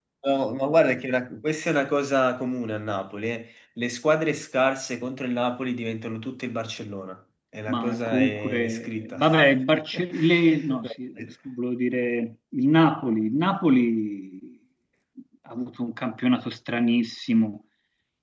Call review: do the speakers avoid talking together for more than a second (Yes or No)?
No